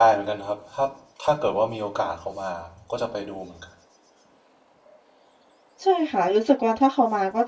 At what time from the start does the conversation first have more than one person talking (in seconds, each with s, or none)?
none